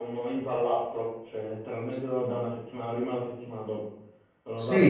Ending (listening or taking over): taking over